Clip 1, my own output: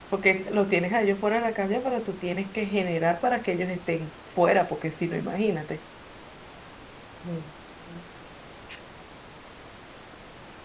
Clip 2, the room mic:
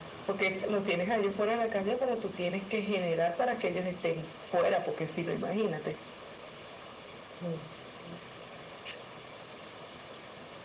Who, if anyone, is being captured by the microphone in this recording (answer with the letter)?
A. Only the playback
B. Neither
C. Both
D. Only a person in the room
A